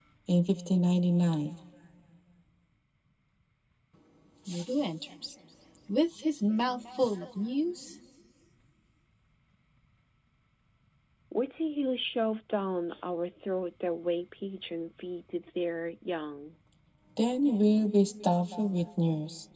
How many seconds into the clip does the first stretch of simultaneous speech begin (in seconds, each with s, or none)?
none